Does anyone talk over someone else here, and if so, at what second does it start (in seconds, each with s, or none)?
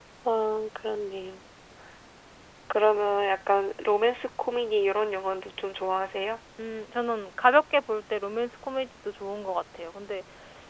none